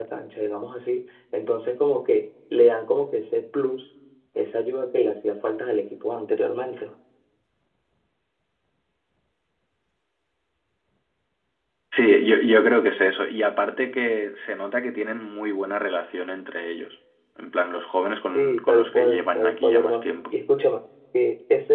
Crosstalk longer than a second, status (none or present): present